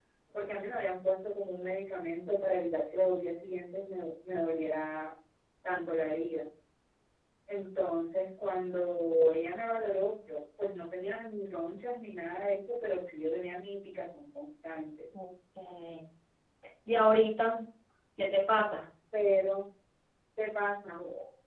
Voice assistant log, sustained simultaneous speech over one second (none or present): none